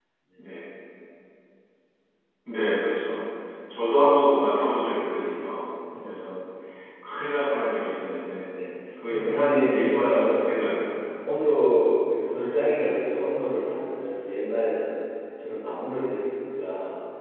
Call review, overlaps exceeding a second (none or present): present